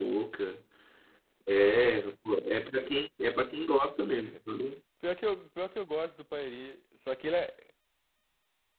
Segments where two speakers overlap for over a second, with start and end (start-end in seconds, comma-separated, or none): none